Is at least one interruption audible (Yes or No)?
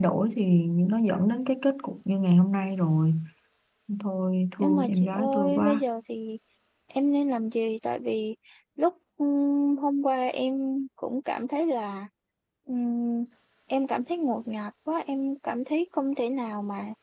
Yes